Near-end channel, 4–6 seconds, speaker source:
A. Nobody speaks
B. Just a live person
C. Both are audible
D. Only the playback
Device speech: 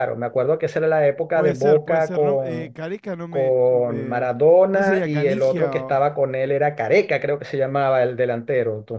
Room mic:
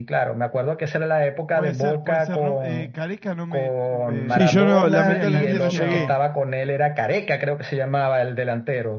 C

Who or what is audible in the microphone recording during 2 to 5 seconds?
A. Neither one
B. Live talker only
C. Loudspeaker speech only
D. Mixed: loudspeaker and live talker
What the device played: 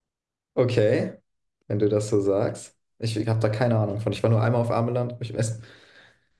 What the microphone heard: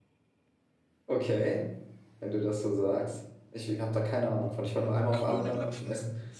C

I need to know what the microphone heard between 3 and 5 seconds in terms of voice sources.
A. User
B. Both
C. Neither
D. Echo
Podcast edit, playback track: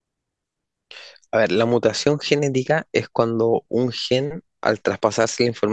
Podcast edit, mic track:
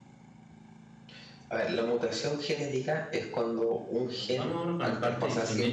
B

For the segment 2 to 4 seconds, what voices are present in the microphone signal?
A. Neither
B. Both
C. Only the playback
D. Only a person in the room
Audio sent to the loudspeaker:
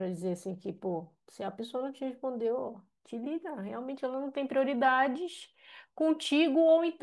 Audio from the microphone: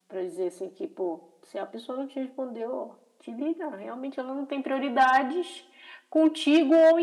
C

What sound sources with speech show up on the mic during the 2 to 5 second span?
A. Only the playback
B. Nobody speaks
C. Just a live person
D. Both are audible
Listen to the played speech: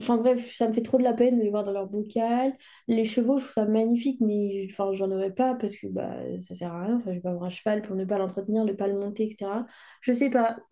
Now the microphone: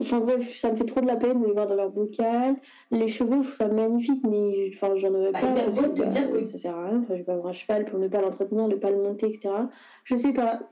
A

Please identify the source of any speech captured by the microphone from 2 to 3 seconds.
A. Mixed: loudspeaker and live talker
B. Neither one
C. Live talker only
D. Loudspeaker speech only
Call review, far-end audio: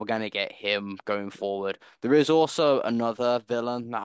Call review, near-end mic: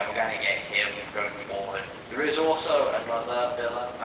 D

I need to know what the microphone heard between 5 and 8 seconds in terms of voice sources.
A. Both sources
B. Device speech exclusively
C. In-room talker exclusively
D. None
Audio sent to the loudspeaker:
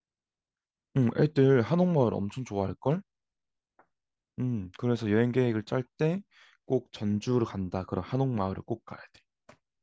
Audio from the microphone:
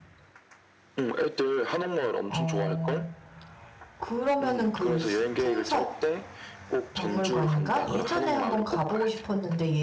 A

